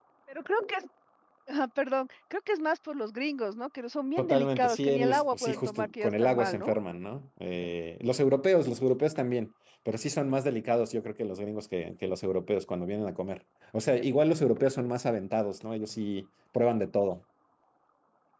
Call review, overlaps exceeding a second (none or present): present